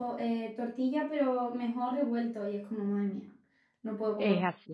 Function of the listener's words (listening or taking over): taking over